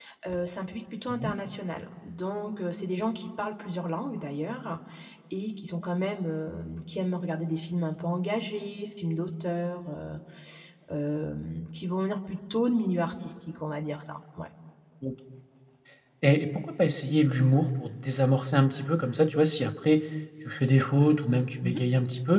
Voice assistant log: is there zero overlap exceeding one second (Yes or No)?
Yes